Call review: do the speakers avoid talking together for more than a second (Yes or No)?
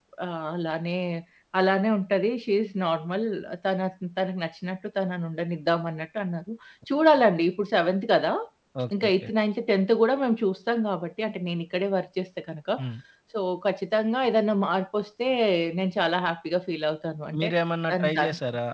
Yes